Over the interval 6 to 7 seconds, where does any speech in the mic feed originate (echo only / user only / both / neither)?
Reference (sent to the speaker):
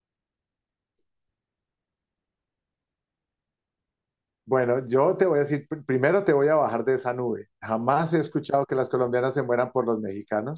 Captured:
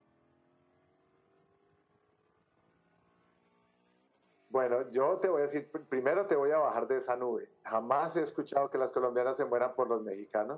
echo only